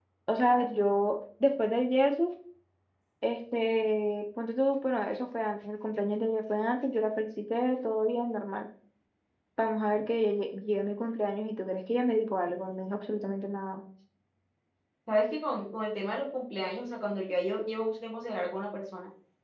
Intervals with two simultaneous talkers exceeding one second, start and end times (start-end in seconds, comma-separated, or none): none